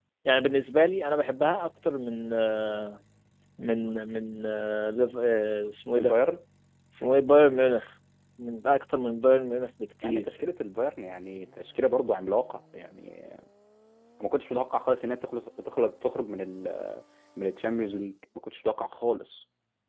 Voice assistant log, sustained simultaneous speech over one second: none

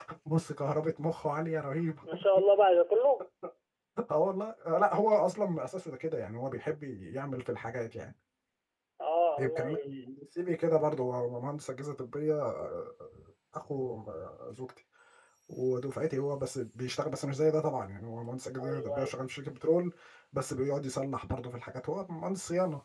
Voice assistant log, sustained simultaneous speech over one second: none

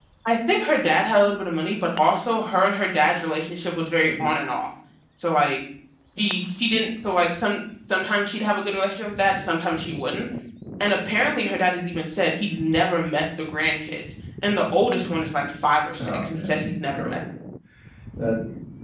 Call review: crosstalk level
present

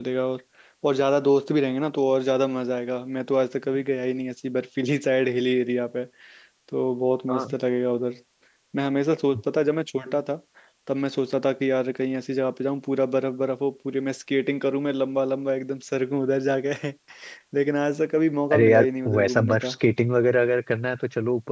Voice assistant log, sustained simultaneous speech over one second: present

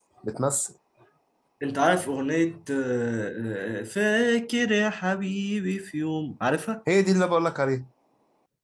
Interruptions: none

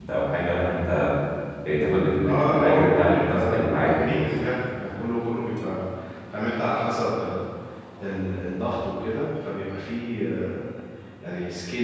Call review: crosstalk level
present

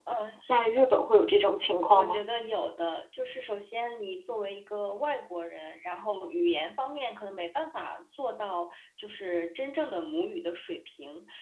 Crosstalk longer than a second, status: none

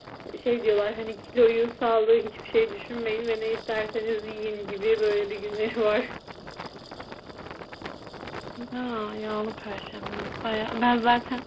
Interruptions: none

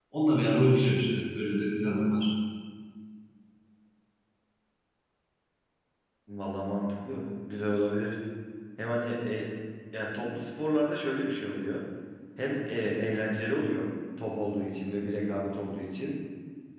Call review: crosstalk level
none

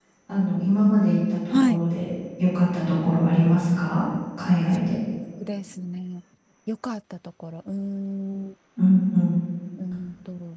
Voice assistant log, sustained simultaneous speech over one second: none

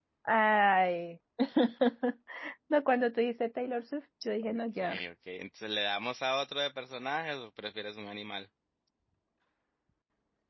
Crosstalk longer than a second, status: none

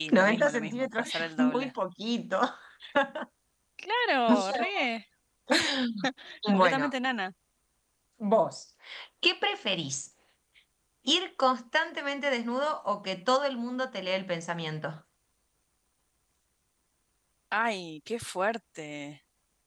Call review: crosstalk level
present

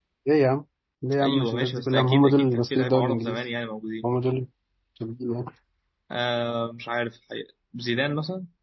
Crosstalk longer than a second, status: present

